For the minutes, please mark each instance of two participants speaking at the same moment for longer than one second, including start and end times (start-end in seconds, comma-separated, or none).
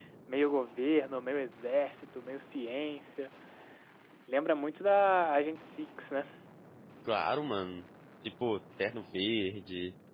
none